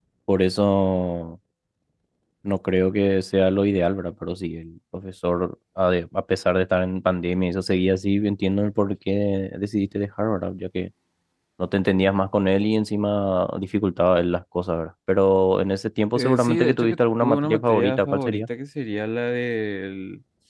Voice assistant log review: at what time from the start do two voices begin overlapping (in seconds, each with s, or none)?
16.2 s